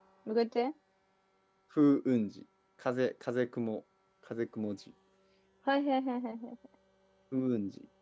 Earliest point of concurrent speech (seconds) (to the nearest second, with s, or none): none